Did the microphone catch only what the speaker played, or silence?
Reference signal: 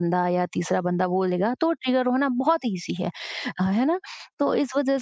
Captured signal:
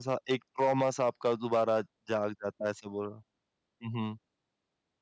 No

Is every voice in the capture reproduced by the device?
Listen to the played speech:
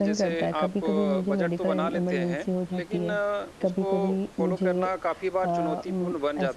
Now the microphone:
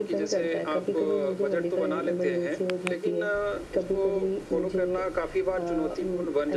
Yes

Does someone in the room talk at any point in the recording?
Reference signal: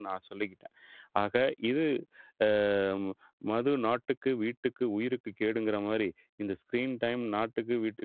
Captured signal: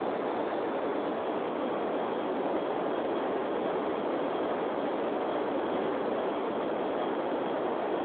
No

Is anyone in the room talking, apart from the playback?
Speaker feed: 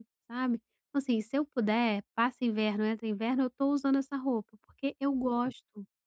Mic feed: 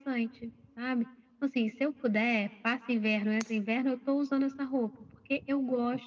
No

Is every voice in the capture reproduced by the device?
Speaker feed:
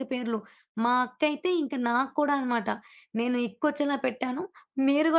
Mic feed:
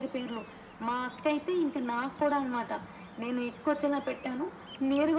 Yes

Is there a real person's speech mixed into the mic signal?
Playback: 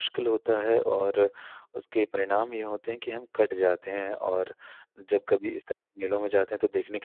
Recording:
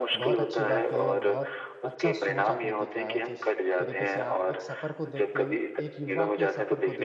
Yes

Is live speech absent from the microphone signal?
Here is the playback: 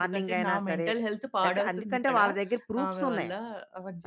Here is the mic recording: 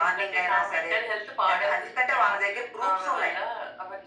Yes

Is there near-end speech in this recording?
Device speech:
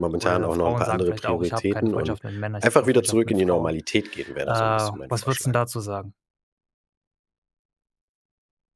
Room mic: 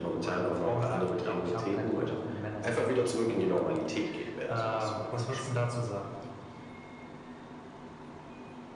No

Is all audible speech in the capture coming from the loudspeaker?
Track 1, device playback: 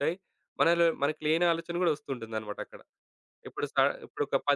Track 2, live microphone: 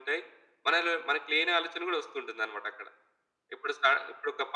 Yes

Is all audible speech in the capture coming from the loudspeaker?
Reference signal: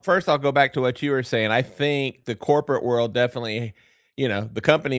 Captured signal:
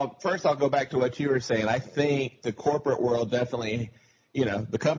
Yes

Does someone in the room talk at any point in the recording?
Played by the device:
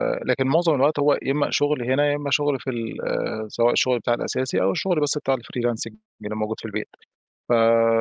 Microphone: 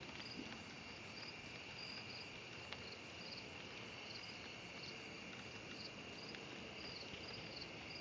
No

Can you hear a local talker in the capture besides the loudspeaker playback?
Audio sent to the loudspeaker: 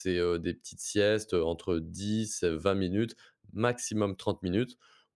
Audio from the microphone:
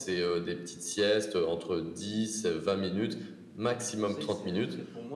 Yes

